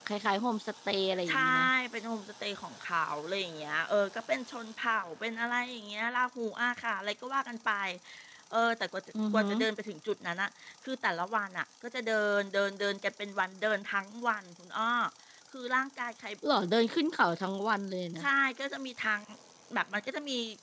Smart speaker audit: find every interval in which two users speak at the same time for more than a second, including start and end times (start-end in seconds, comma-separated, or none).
none